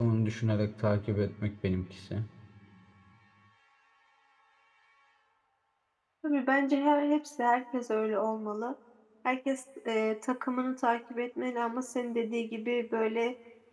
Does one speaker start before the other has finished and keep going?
No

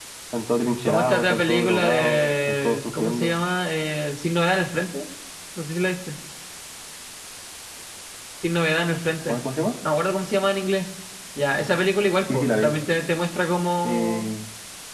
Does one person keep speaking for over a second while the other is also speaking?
Yes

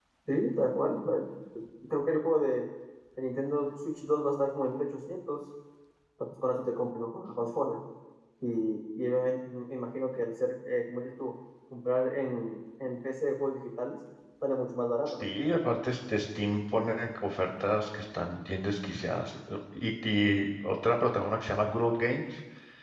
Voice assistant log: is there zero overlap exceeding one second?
Yes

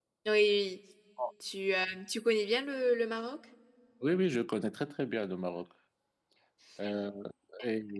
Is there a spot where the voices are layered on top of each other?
No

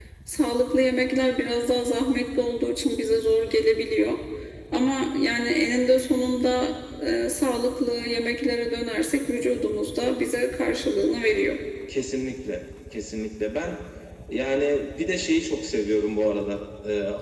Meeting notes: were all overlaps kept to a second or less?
Yes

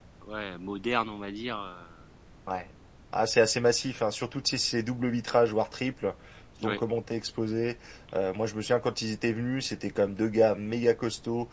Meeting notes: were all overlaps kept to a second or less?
Yes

